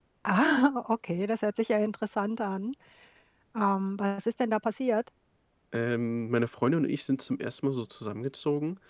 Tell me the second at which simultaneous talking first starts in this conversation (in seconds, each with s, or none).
none